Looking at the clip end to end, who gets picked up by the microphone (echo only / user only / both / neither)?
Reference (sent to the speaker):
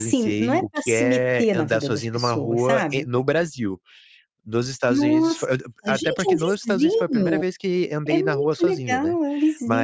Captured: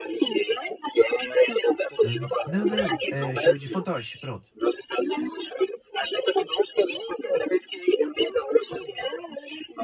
both